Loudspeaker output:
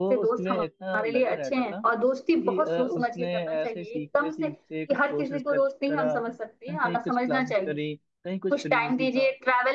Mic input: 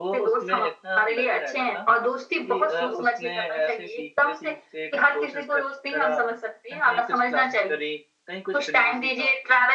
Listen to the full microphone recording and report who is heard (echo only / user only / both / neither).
echo only